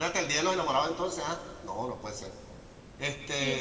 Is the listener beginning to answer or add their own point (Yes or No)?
Yes